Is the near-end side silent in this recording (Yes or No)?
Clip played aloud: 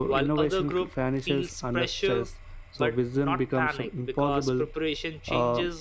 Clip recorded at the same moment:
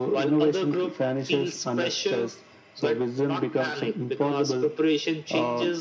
Yes